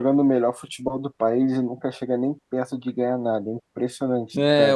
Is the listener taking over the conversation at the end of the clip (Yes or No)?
Yes